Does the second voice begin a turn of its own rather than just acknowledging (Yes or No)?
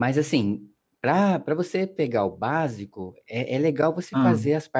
No